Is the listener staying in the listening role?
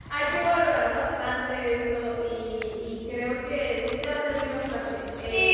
No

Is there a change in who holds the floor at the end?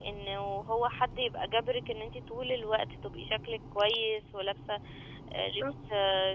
No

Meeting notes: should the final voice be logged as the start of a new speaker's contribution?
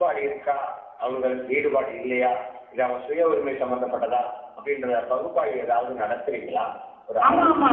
Yes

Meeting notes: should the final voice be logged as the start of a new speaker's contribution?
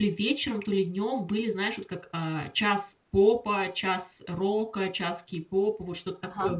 No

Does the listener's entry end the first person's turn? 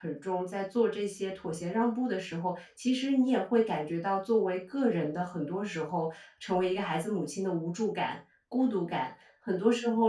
No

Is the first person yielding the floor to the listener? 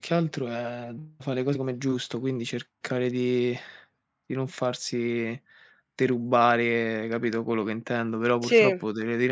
No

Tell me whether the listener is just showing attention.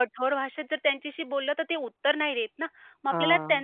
Yes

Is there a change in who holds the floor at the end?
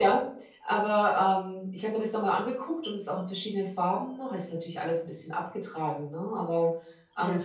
No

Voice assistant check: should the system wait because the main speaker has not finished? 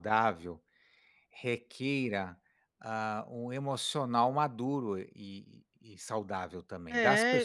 No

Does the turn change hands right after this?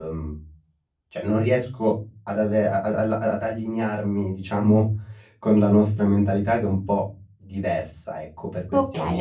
Yes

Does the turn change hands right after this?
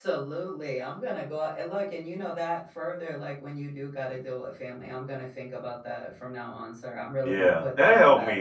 Yes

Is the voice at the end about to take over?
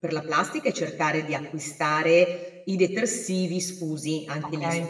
No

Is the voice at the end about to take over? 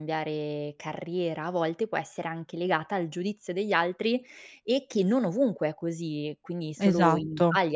No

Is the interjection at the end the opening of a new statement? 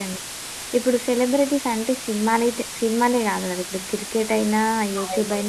No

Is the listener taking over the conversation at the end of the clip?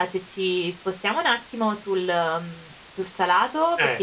No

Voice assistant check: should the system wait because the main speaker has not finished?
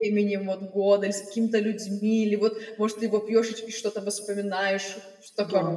No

